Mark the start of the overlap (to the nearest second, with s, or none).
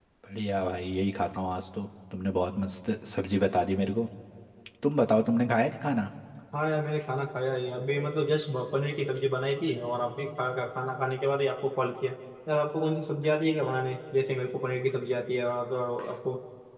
none